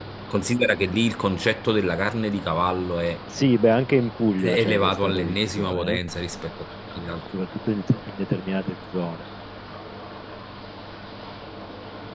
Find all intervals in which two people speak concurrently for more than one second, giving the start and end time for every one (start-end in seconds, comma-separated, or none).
4.4-6.0